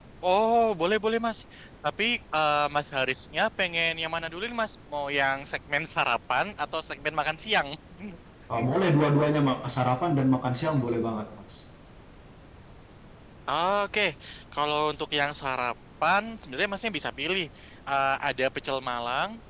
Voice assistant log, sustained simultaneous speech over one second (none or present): none